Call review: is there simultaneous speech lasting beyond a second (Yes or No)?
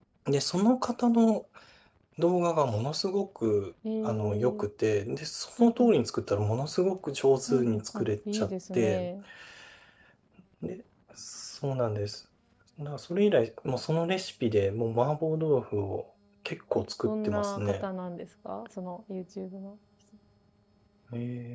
Yes